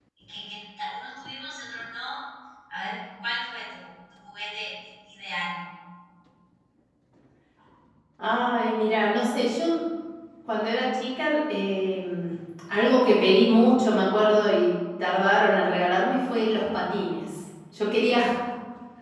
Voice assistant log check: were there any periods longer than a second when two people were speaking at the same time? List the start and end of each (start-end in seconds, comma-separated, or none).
none